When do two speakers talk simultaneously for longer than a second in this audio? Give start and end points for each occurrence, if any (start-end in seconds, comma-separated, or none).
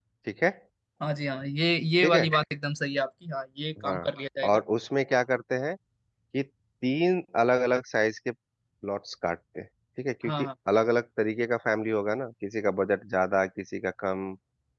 none